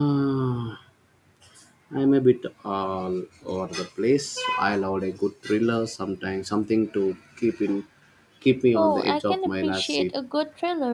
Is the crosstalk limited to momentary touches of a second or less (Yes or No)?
No